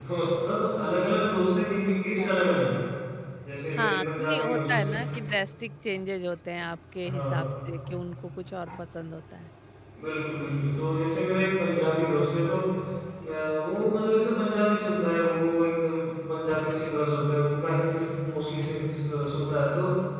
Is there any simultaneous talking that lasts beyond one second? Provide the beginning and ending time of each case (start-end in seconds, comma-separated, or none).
3.7-4.9